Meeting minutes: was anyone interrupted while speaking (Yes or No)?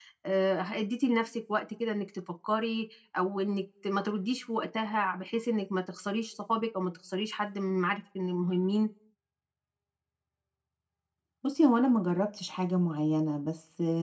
No